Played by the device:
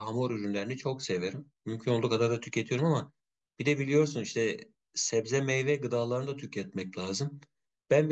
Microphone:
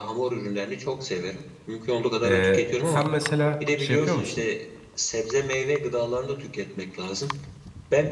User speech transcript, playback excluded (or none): E, sen mesela şey yapıyor musun?